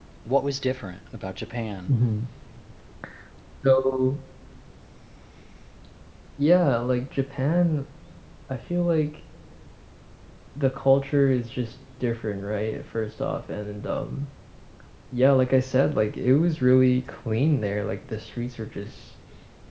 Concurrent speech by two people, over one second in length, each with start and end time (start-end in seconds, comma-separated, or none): none